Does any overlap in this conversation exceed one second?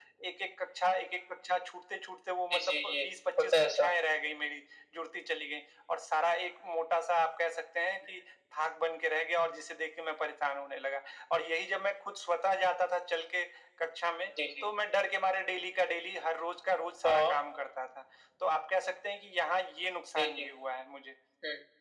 No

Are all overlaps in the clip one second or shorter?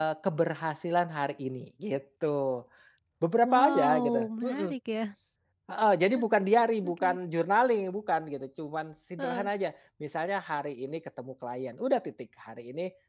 No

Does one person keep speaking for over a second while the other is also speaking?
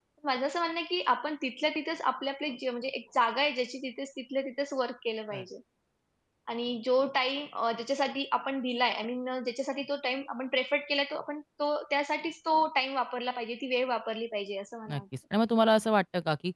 No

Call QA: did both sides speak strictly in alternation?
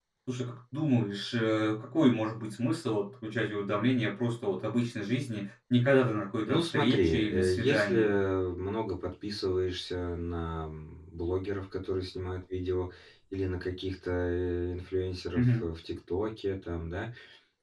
No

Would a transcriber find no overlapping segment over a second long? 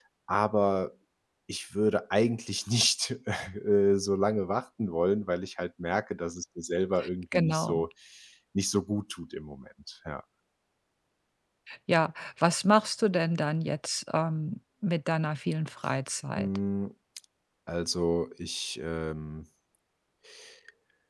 Yes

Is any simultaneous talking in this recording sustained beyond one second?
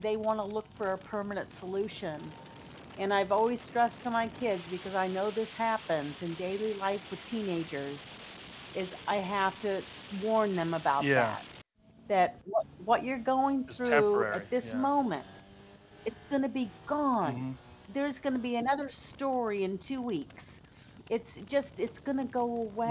Yes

